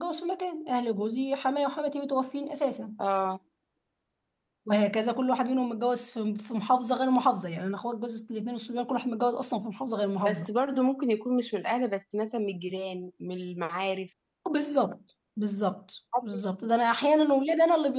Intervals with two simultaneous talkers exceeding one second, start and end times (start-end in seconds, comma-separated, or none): none